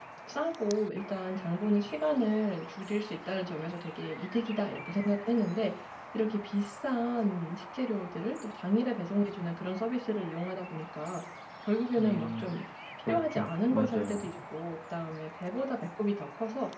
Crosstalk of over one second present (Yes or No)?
Yes